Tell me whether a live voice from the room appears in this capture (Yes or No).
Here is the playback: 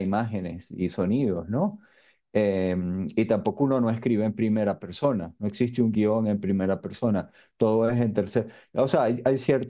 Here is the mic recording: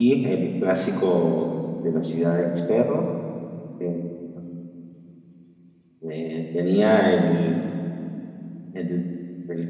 Yes